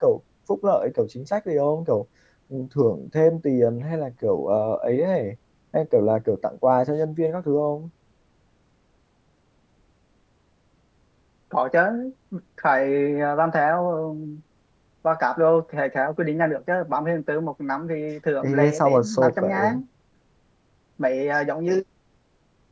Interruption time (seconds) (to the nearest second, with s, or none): 18 s